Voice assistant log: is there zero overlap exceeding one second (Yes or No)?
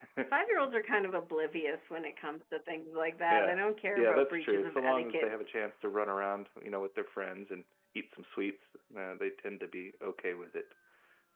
No